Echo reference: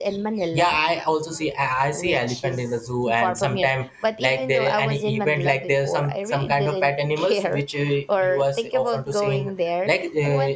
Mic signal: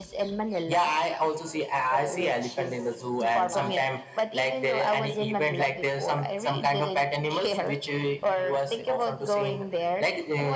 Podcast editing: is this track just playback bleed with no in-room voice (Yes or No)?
No